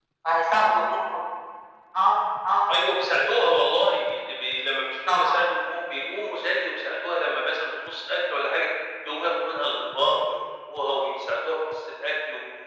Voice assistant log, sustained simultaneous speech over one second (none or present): none